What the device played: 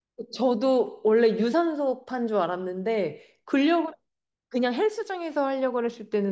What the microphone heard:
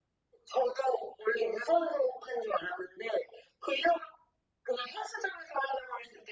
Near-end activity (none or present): none